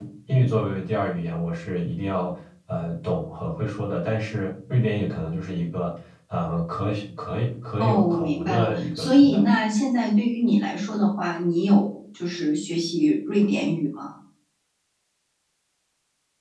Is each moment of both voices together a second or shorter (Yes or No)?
No